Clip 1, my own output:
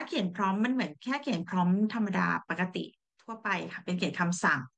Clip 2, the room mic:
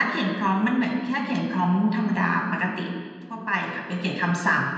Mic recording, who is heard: echo only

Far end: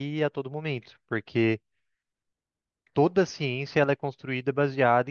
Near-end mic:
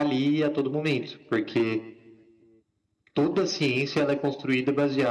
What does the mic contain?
echo only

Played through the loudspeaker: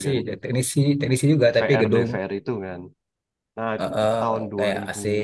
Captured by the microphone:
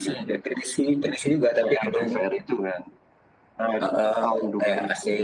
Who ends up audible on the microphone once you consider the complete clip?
echo only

